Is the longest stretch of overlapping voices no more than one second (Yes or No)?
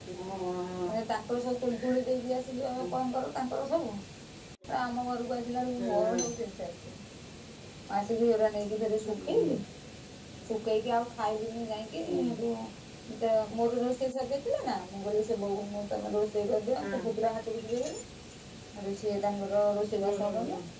Yes